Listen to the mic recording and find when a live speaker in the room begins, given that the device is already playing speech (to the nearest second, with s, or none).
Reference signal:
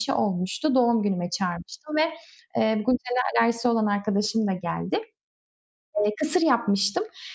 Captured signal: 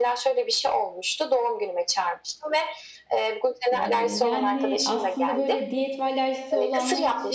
4 s